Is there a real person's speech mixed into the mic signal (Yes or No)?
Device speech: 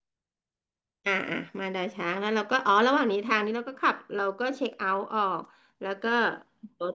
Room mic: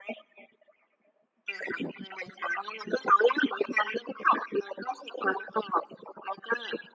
No